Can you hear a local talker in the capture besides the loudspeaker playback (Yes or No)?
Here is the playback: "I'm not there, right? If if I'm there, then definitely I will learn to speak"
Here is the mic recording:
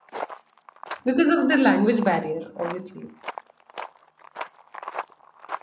Yes